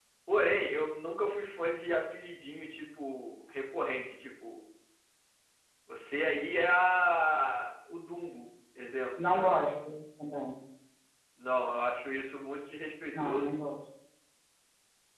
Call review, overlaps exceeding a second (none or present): none